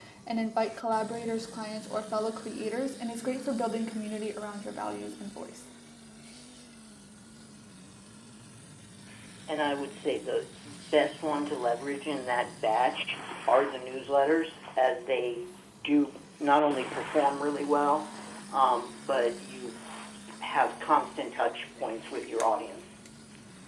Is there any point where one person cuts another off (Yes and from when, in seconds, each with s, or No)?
No